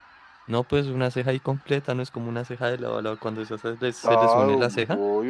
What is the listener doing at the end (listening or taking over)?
taking over